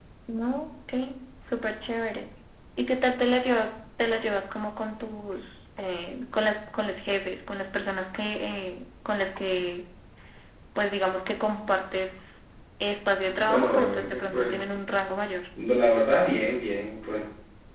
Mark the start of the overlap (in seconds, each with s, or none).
13.4 s